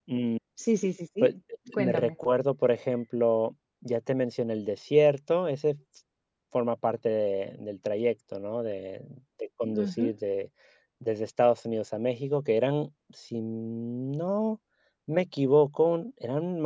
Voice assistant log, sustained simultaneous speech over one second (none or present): none